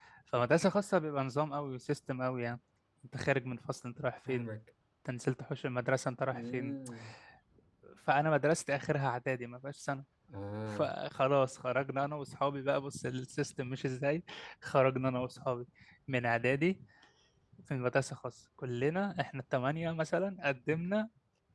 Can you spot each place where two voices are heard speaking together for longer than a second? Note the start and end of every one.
none

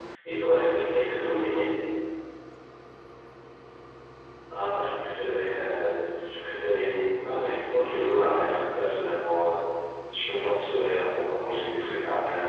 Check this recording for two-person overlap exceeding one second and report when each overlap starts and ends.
none

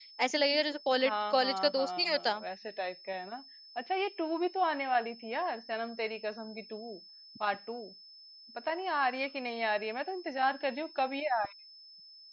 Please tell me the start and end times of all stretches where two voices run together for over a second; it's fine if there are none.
1.0-2.4

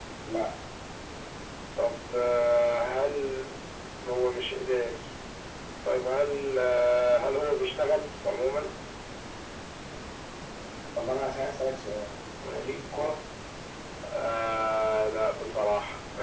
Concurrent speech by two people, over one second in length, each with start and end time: none

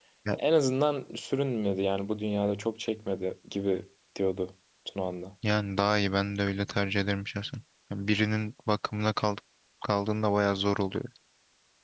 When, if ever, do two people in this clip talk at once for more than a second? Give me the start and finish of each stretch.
none

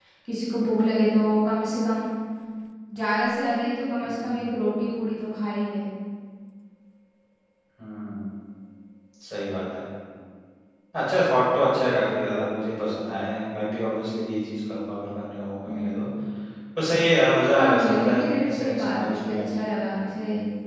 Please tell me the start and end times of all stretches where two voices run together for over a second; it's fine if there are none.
17.5-19.4

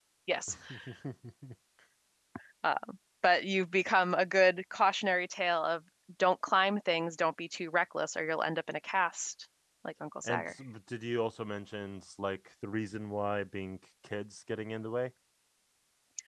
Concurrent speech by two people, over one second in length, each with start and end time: none

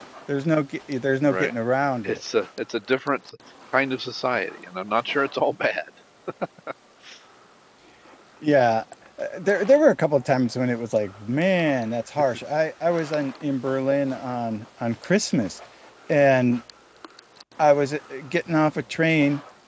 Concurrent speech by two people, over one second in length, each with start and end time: none

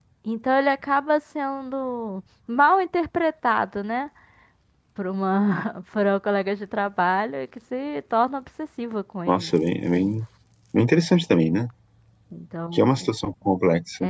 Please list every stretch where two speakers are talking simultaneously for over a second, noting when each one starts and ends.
none

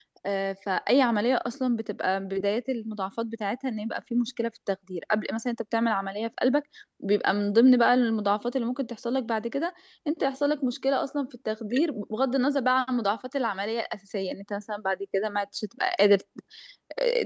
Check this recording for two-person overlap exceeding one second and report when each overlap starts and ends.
none

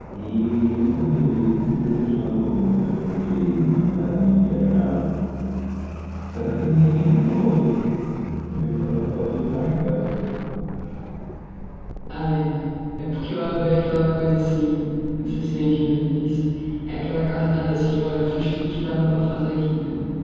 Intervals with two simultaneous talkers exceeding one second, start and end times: none

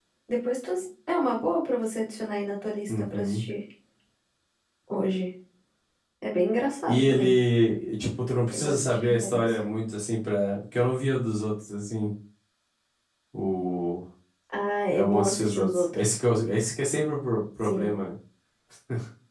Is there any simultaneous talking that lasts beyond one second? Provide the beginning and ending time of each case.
8.5-9.7, 14.9-16.2

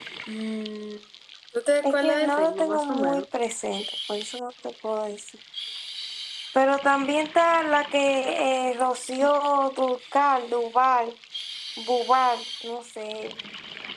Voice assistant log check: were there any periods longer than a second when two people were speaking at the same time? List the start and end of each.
1.8-3.2

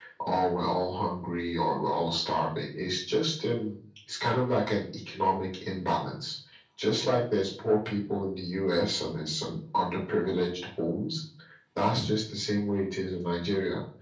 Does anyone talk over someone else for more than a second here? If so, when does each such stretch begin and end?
none

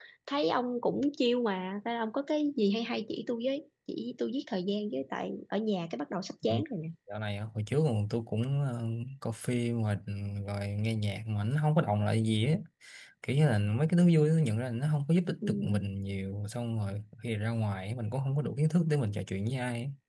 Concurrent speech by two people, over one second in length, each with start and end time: none

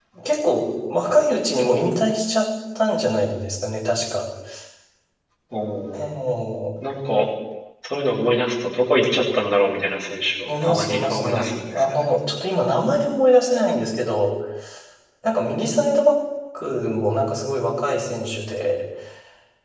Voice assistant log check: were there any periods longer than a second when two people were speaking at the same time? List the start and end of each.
10.6-12.0

